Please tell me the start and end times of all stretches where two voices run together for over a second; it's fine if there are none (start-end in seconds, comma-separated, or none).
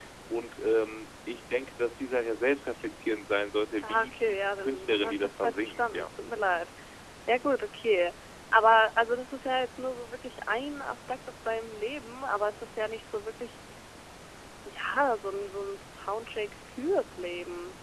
3.9-6.1